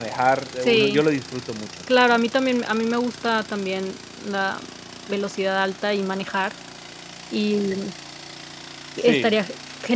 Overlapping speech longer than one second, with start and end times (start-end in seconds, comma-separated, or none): none